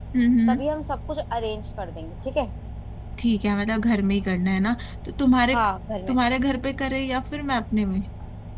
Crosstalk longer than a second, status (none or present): none